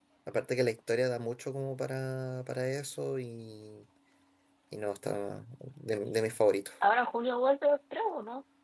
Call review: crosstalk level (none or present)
none